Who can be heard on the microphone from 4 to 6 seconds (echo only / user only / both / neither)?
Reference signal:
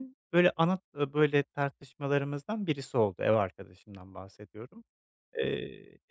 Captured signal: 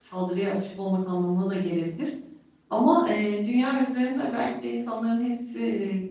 user only